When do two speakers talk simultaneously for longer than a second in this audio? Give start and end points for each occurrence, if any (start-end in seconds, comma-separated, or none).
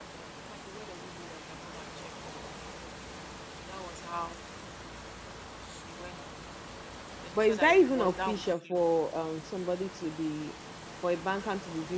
7.3-8.8